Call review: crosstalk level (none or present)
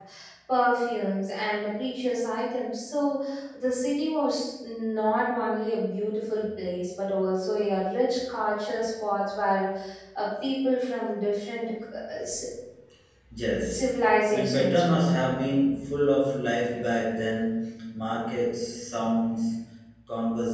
present